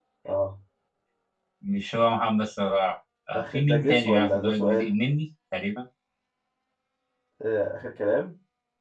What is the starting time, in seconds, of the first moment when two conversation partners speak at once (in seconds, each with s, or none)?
3.3 s